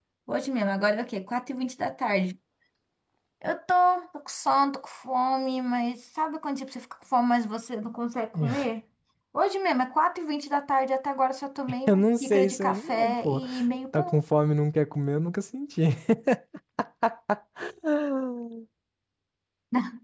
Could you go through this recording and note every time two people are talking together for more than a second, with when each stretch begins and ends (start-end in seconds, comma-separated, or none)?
11.9-13.4